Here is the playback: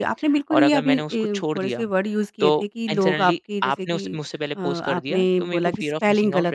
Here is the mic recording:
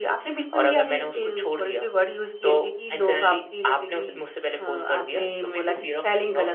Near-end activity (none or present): none